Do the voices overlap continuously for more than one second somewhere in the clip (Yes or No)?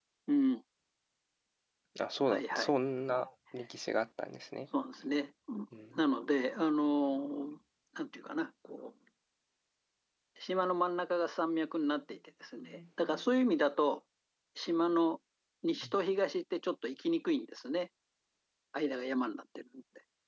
No